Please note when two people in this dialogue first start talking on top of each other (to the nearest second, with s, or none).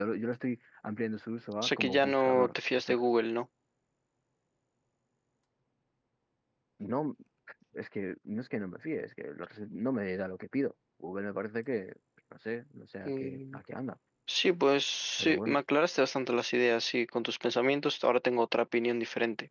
2 s